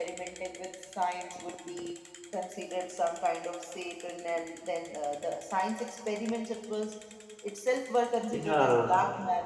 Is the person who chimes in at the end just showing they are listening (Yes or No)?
Yes